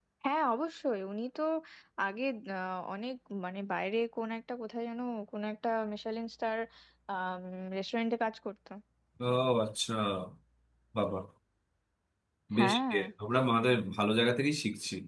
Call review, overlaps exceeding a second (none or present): none